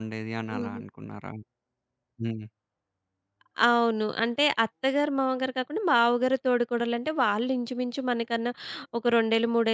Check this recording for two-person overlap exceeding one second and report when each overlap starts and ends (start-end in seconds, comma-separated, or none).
none